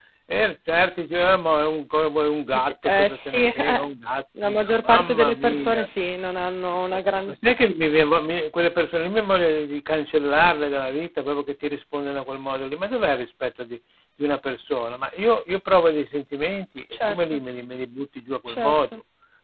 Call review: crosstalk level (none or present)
present